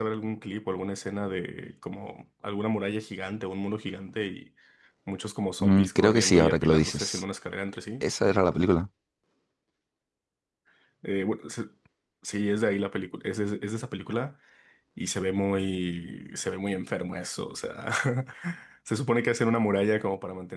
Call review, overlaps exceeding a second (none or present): present